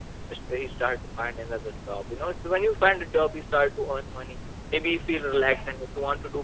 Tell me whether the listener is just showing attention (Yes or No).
Yes